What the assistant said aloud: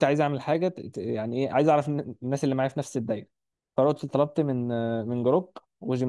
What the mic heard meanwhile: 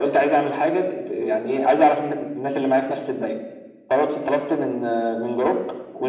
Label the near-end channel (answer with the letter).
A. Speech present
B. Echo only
B